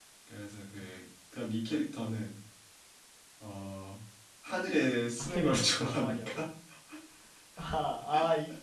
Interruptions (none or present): present